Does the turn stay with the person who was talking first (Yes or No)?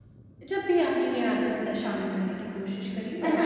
No